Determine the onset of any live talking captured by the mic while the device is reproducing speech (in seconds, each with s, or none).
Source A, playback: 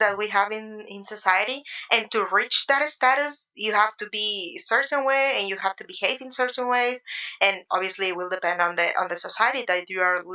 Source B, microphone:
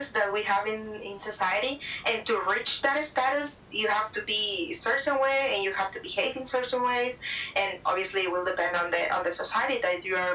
none